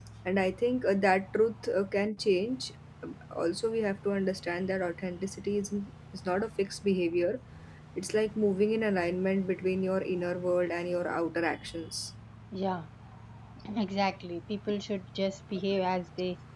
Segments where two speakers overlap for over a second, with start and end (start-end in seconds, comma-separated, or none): none